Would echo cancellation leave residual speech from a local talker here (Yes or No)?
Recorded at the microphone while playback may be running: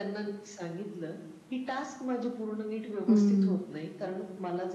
Yes